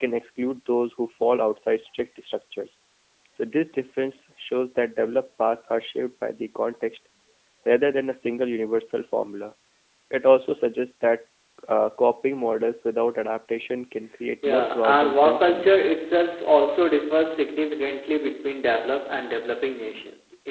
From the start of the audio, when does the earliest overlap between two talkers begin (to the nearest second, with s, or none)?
14 s